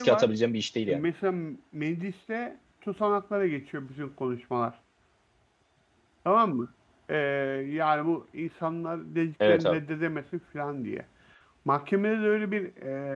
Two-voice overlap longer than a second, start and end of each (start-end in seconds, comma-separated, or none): none